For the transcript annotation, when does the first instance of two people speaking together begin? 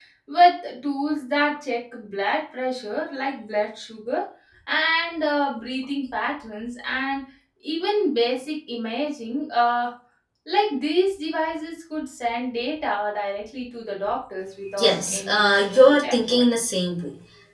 14.8 s

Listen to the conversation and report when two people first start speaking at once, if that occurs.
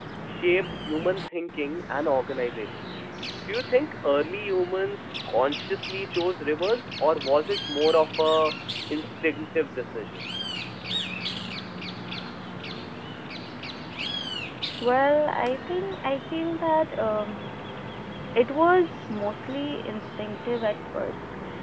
none

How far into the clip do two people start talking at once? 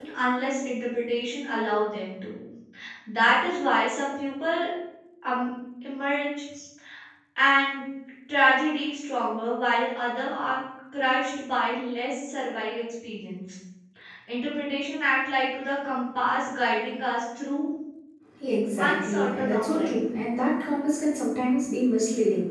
18.8 s

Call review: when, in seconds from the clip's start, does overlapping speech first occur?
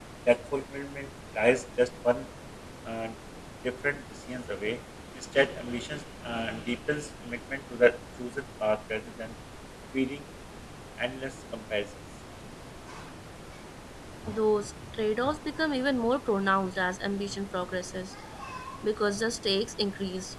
none

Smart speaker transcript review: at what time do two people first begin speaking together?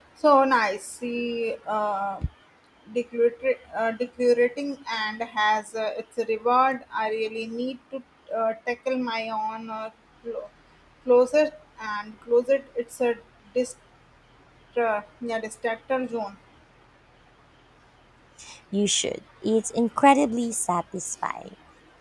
none

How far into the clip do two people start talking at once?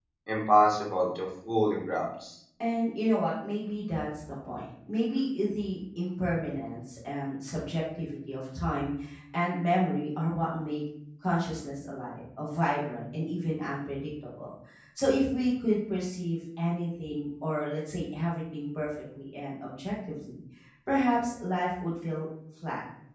none

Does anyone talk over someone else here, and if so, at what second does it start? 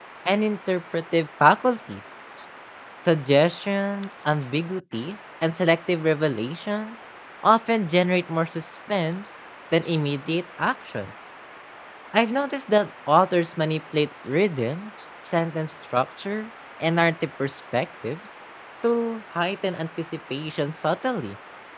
none

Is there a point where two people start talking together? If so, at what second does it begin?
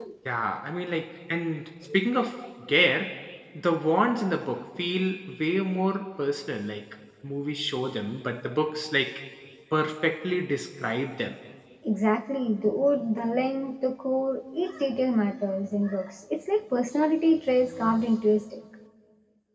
none

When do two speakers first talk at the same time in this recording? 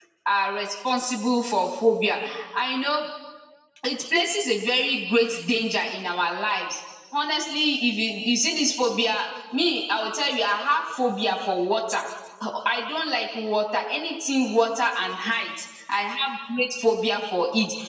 none

